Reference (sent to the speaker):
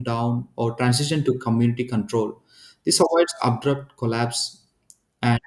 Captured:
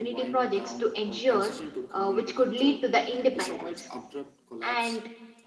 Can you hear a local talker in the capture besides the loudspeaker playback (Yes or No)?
Yes